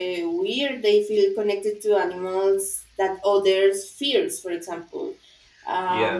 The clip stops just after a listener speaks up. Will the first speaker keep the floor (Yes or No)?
Yes